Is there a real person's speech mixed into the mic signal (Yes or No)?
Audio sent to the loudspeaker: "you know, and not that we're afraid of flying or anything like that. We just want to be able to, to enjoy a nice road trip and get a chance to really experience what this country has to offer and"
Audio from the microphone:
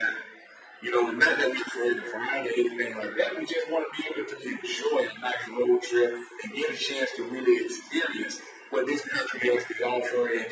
No